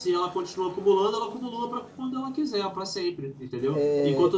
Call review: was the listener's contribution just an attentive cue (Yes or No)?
No